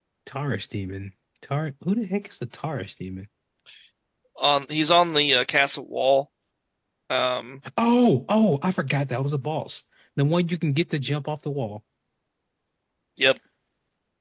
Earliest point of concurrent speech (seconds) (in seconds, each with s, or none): none